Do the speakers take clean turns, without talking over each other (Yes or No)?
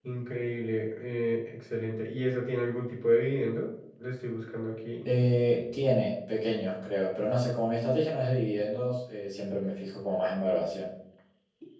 Yes